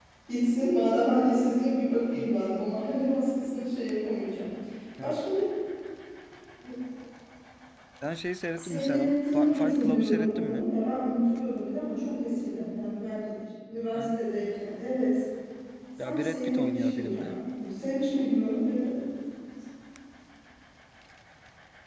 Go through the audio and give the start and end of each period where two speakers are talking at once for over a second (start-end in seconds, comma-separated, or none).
8.6-10.7, 16.0-17.4